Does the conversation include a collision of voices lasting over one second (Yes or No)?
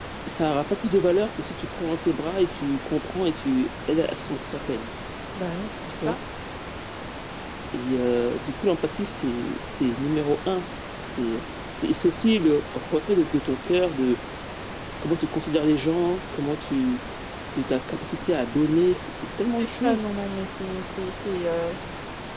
No